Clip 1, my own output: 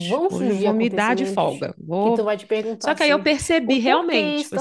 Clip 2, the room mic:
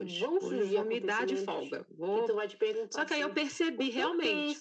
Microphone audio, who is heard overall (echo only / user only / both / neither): echo only